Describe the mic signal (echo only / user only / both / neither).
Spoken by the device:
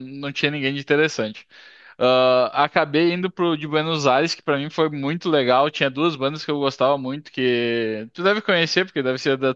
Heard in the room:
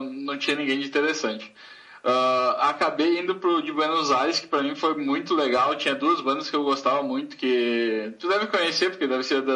echo only